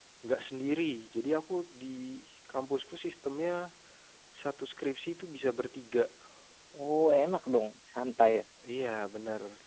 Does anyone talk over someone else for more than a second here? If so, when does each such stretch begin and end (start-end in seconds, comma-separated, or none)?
none